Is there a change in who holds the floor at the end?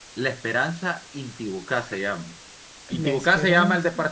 No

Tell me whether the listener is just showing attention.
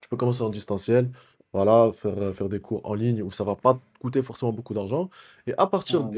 Yes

